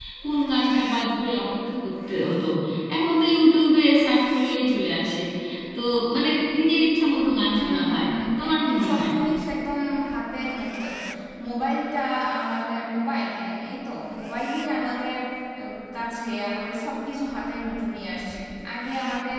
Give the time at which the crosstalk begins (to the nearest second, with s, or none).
8 s